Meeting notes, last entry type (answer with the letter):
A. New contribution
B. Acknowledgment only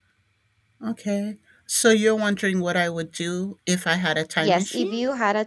A